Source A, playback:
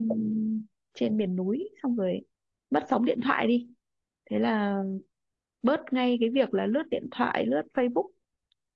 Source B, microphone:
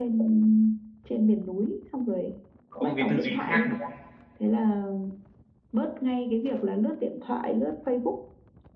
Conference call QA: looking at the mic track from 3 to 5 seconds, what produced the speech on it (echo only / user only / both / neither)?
both